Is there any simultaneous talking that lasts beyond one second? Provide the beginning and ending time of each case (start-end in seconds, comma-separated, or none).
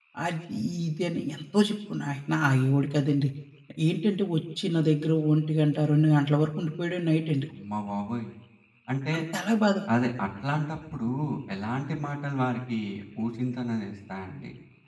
none